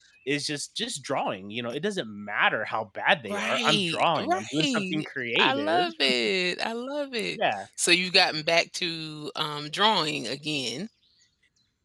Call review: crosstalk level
present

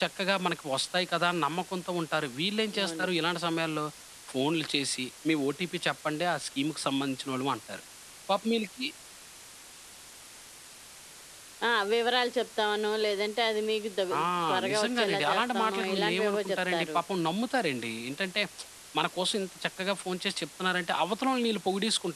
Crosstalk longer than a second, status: present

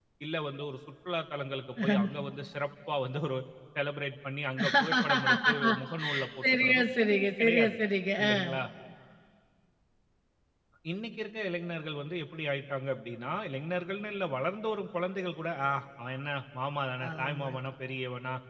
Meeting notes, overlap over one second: present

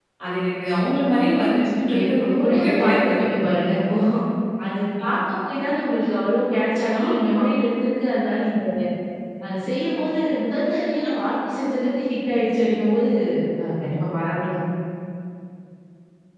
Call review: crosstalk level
present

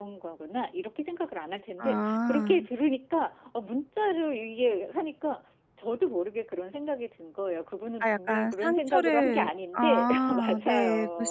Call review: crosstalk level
present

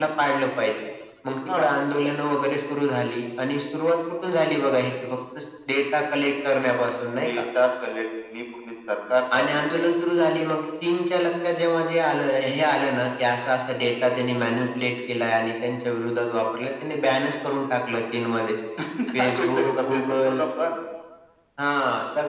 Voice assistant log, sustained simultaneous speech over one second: present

